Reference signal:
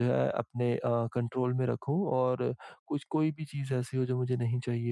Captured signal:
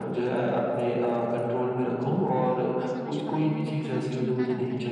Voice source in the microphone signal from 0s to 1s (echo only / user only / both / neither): echo only